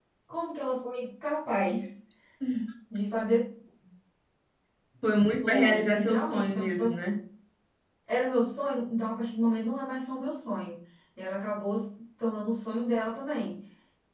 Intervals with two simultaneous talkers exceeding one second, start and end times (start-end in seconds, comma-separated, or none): 5.4-6.8